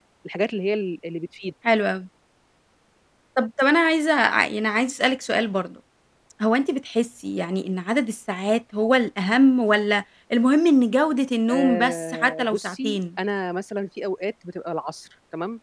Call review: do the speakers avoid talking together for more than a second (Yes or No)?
No